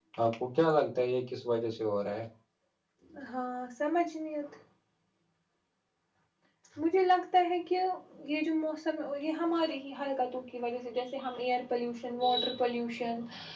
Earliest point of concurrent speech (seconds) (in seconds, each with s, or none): none